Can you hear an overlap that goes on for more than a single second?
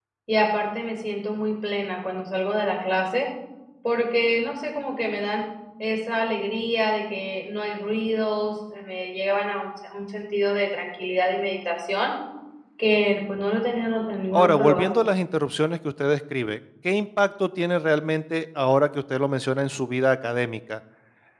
No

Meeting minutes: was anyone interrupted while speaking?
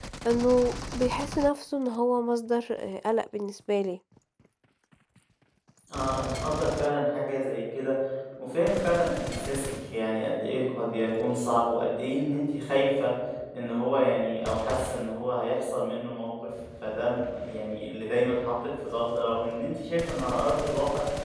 No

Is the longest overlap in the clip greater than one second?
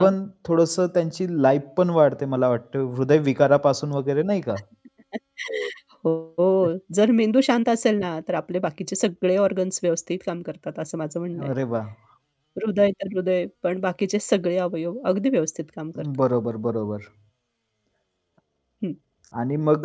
No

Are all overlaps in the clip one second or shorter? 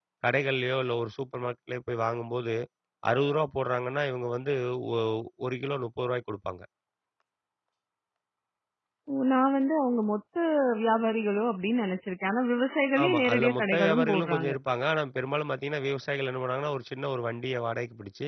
No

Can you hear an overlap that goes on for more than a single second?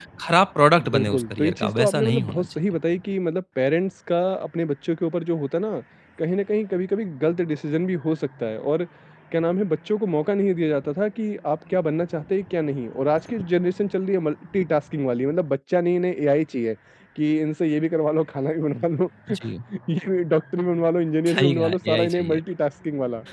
Yes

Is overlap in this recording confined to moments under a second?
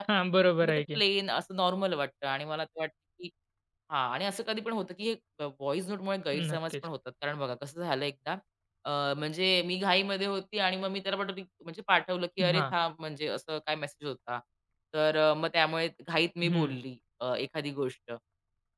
Yes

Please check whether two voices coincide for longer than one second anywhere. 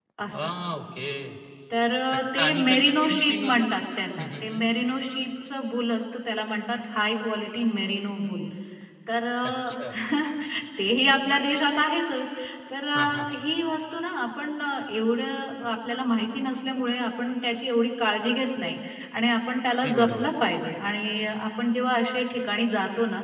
Yes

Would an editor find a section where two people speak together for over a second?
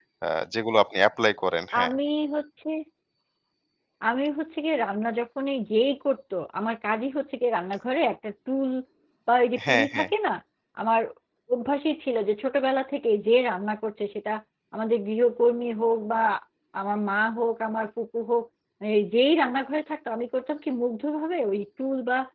No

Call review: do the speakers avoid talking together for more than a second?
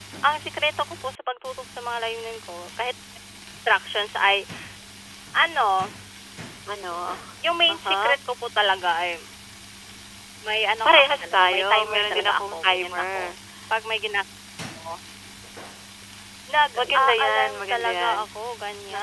No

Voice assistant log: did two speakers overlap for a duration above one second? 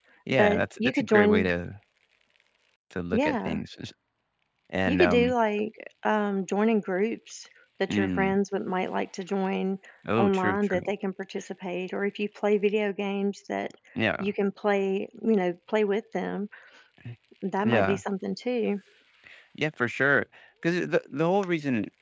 Yes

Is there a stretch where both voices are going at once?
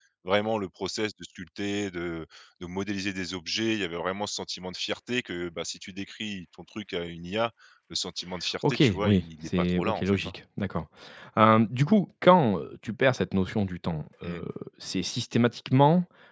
Yes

